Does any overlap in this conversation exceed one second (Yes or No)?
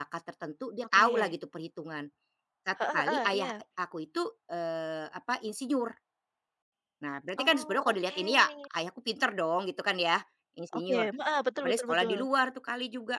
Yes